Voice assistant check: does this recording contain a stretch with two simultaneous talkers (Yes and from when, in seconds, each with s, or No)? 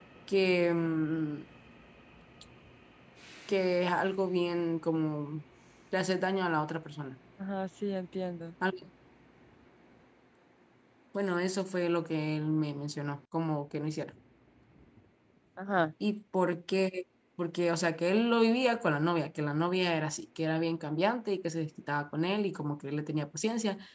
No